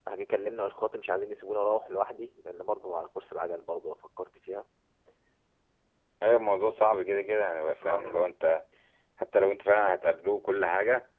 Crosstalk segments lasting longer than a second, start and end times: none

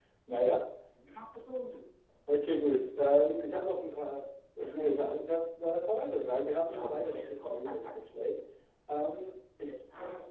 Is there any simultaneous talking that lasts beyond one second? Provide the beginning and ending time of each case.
6.6-8.0

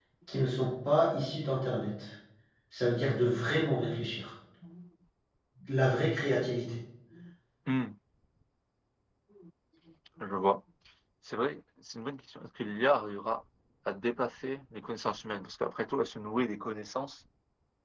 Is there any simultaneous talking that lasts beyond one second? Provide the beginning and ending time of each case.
none

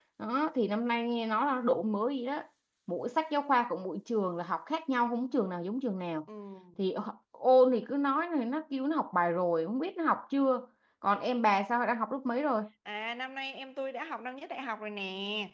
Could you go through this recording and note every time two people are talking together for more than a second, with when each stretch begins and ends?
none

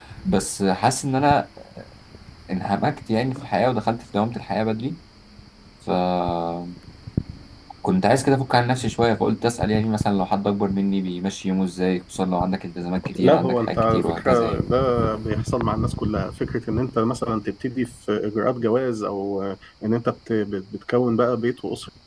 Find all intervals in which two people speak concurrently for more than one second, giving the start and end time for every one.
13.2-14.6

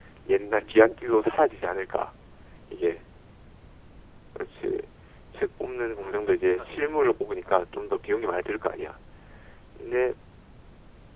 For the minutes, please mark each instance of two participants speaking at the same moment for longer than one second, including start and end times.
6.0-7.6

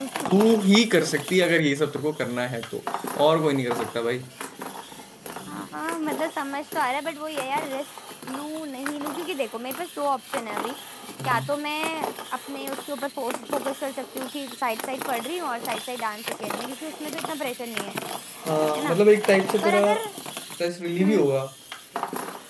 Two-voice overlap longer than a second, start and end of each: none

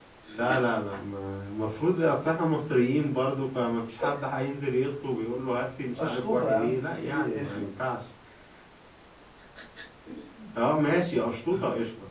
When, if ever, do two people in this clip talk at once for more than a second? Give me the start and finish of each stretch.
6.0-7.4

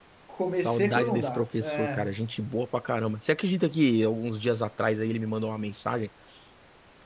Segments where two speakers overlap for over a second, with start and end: 0.6-2.1

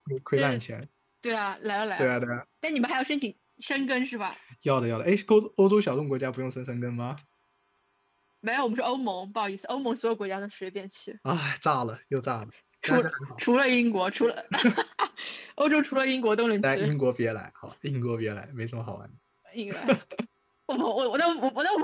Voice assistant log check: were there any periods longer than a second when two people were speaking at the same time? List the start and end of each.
none

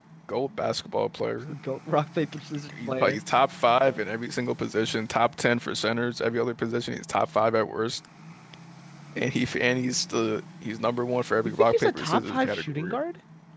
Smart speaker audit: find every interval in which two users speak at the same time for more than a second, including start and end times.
11.6-13.0

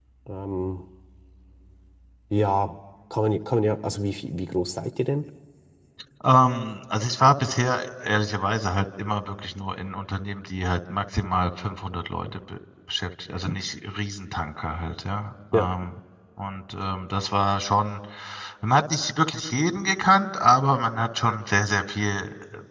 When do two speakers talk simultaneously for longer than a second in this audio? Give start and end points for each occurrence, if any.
none

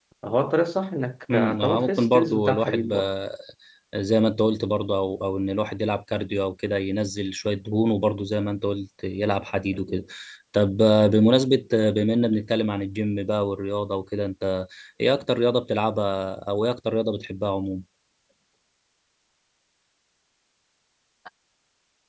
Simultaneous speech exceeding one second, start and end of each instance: 1.6-2.9

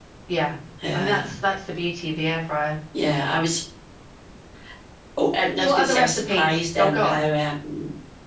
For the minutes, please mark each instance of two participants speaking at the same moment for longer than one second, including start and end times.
5.6-7.2

